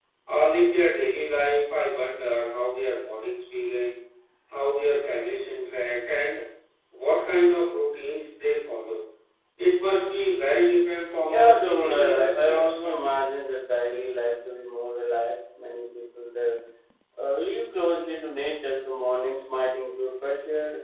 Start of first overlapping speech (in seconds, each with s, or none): 11.2 s